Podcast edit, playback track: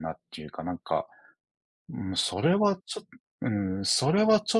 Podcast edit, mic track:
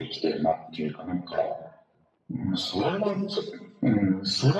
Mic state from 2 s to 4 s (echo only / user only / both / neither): echo only